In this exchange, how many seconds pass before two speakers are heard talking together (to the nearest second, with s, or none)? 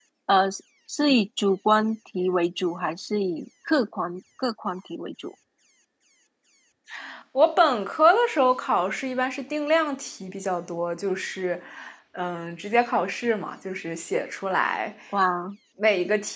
none